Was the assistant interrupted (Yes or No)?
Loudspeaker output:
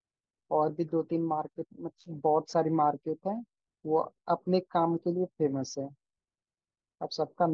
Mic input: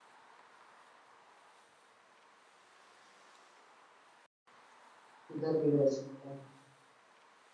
Yes